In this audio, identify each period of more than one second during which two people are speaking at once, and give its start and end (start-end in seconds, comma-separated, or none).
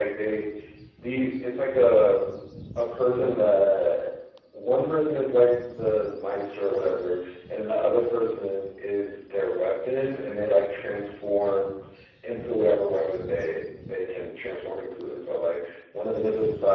none